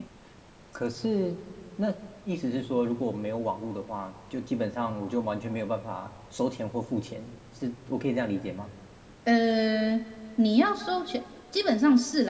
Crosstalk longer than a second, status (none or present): none